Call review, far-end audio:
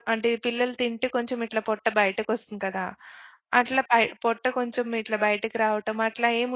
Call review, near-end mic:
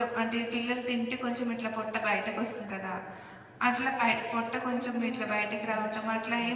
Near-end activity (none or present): present